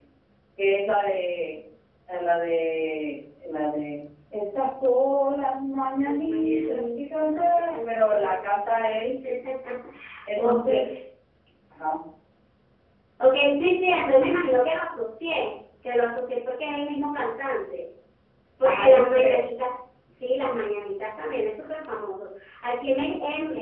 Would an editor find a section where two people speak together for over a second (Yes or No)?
Yes